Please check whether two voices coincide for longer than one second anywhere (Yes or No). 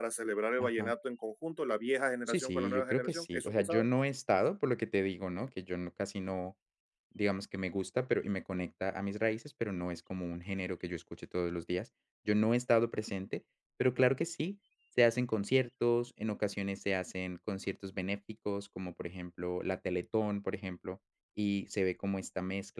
Yes